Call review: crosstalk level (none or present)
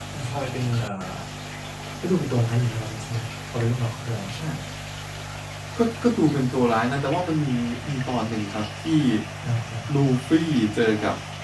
none